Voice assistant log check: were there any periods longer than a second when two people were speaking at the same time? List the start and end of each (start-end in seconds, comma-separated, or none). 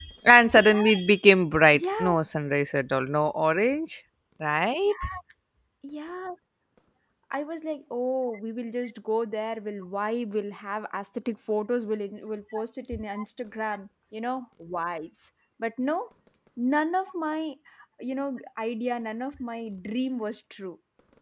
none